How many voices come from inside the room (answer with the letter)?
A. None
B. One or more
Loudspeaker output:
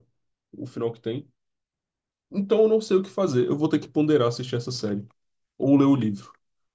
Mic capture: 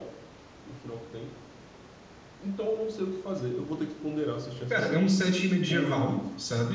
B